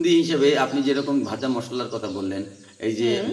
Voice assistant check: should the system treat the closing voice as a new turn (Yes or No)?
No